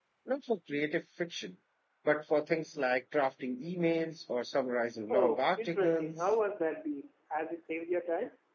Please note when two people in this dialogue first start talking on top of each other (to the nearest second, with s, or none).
5 s